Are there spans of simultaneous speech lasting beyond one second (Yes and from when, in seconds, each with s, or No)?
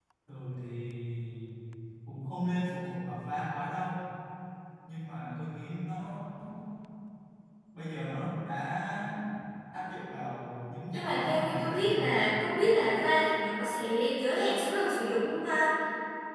Yes, from 10.9 s